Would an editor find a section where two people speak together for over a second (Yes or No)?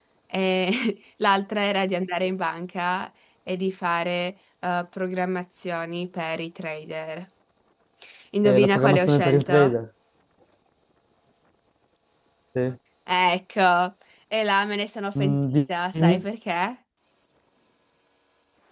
Yes